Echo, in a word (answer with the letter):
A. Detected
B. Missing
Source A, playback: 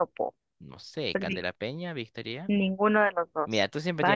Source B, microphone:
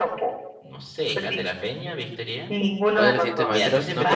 A